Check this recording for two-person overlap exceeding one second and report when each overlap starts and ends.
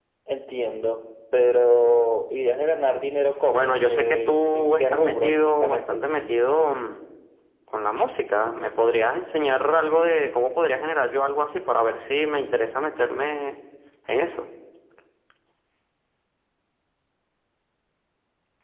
3.5-6.0

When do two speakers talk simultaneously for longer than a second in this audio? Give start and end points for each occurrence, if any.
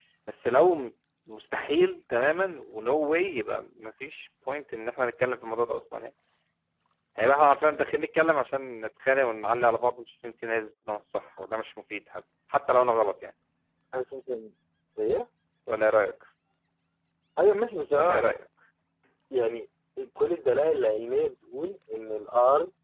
none

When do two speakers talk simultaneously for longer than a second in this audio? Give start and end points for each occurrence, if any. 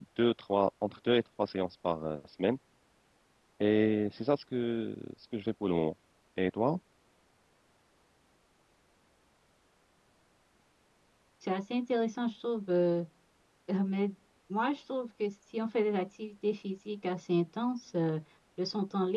none

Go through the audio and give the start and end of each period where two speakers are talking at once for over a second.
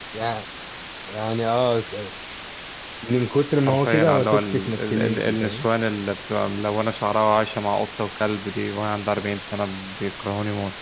3.6-5.7

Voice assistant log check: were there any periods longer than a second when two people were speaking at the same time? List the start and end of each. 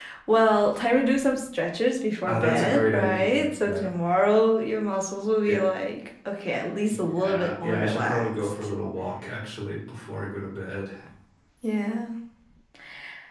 2.3-3.9, 6.9-8.5

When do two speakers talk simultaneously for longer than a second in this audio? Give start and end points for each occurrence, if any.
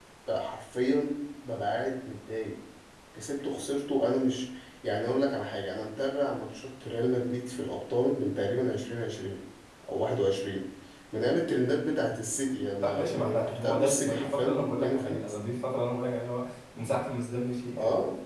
12.8-15.3

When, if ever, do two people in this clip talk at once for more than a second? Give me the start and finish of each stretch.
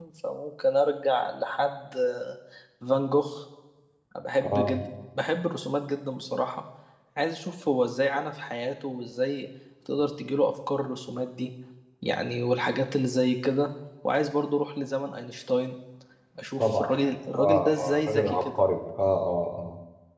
17.4-18.6

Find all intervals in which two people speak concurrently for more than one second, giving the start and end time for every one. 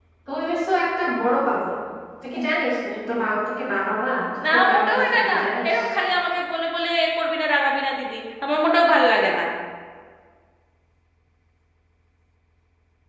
4.5-5.7

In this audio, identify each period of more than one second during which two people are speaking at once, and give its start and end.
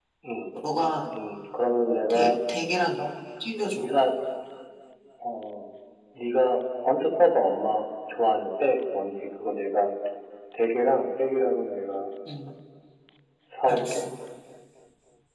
none

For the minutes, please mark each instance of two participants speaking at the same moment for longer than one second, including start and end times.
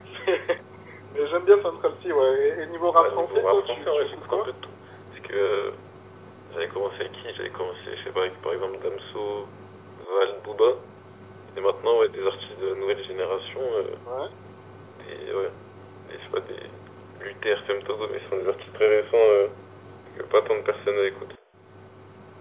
2.9-4.5

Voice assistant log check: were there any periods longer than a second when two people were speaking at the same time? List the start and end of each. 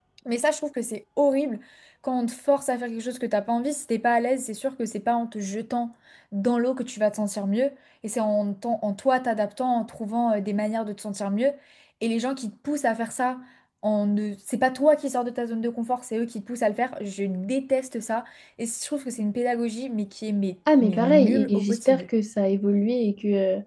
20.8-22.0

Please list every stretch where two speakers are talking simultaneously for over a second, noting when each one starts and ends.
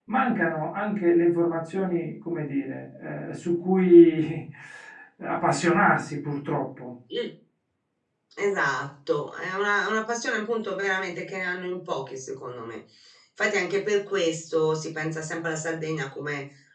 none

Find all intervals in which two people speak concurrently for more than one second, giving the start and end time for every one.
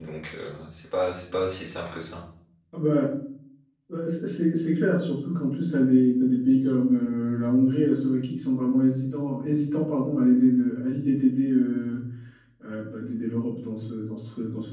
none

